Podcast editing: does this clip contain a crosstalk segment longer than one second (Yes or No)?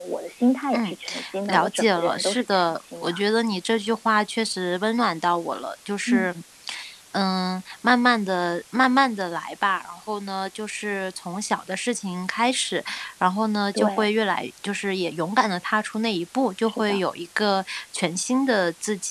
Yes